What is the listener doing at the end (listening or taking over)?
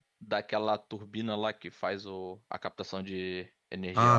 taking over